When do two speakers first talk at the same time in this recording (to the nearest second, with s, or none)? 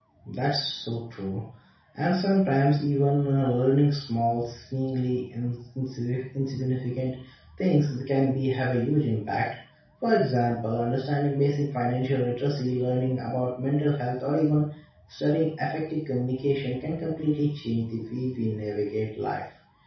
none